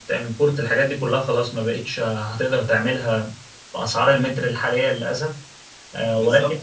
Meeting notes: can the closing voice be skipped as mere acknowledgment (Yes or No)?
No